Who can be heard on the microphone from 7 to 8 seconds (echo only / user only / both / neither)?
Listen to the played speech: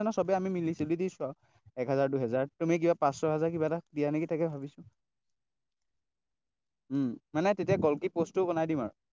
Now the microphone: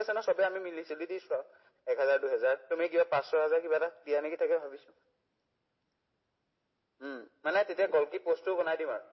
echo only